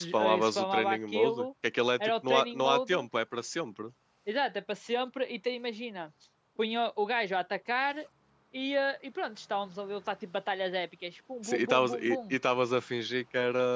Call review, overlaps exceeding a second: present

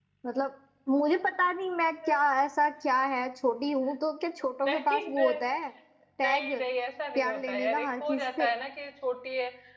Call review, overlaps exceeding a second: present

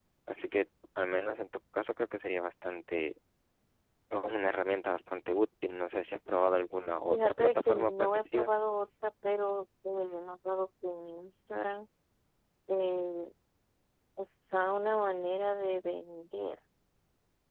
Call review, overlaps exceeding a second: present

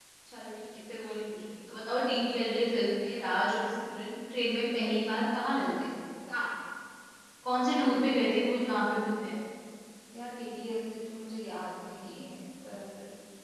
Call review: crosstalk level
none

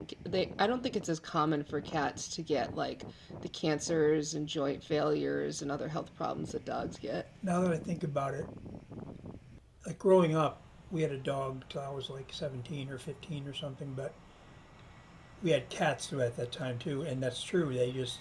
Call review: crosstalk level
none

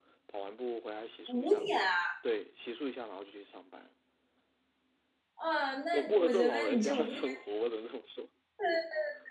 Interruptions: present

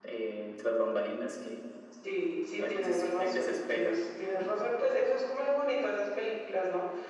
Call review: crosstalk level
present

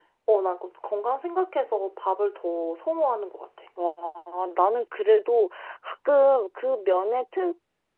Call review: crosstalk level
none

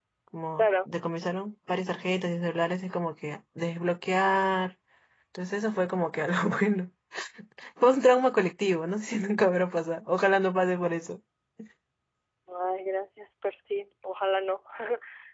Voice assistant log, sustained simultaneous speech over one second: none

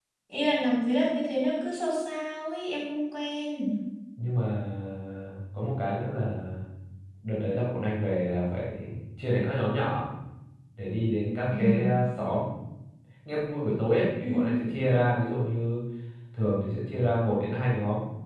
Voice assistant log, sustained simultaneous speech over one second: none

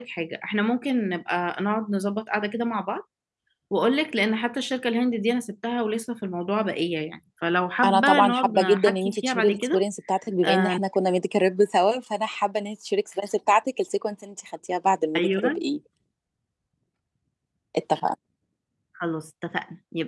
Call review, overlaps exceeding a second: present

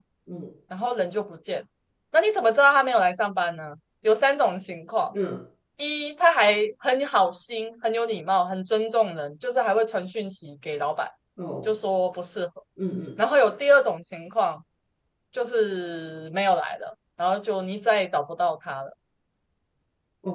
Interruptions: none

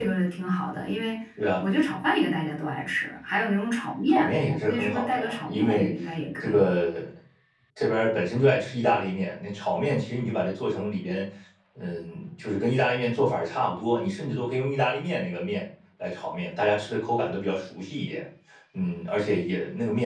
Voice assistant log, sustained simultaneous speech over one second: present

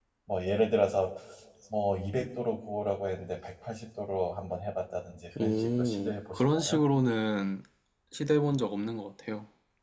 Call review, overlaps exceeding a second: present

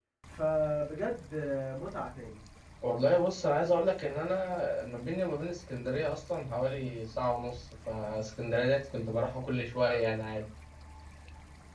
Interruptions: none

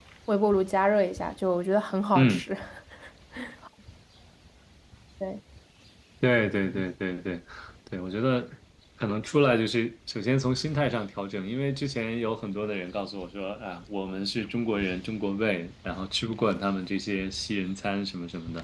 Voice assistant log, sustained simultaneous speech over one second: none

